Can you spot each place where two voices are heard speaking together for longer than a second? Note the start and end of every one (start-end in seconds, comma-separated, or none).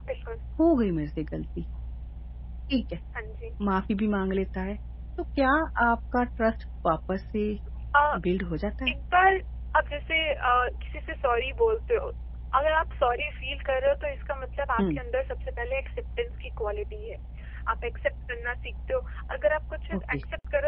none